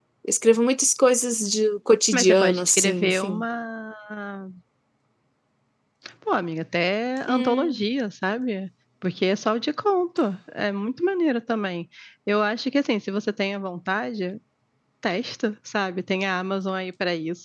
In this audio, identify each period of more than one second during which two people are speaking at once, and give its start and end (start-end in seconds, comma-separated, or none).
2.1-3.4